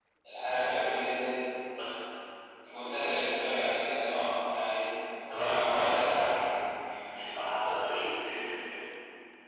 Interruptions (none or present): present